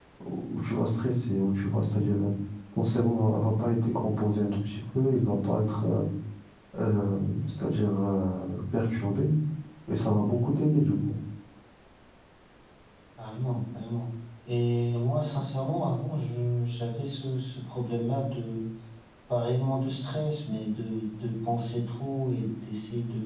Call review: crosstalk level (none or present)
none